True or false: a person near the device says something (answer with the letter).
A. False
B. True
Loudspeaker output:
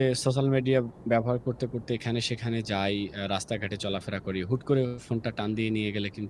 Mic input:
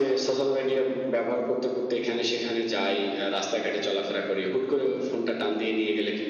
A